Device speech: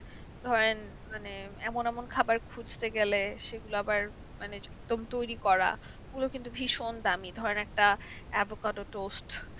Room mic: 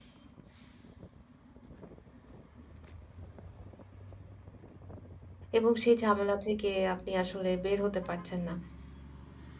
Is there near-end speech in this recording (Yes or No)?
Yes